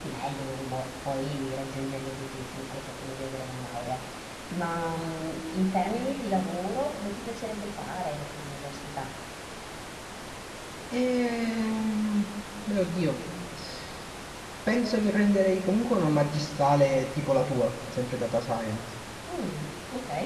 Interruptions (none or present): none